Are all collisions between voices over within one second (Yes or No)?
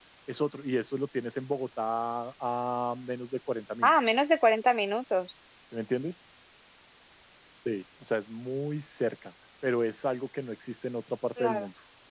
Yes